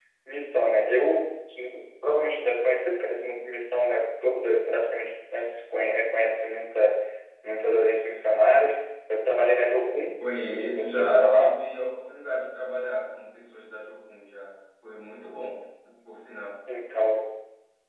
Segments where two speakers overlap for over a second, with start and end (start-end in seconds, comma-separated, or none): 10.2-11.6